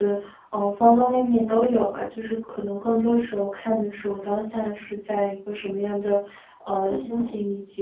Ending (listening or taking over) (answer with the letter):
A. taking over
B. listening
B